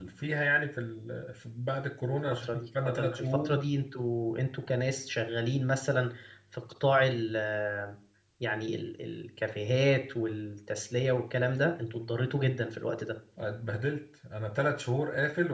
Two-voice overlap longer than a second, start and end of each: 2.3-3.5

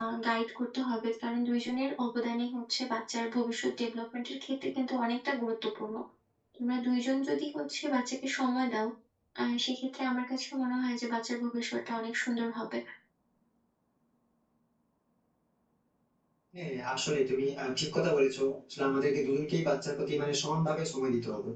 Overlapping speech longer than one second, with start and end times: none

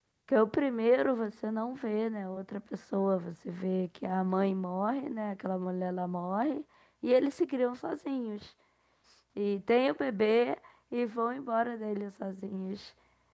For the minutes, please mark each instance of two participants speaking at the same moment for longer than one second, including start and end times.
none

